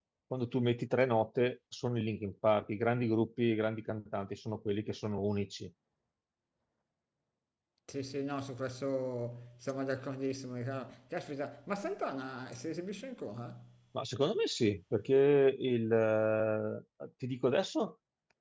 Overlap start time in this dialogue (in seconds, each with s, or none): none